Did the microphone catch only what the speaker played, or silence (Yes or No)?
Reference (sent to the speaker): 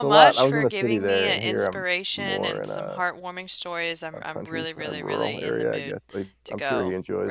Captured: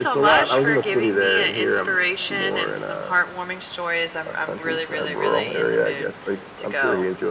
Yes